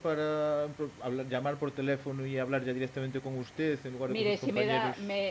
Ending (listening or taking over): taking over